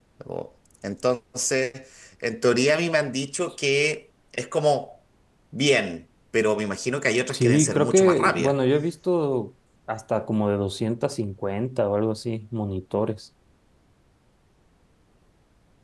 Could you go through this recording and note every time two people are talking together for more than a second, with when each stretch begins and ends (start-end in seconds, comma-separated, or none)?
7.3-8.5